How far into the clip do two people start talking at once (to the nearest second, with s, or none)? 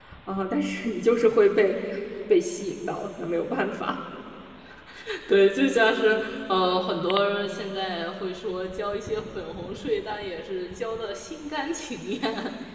none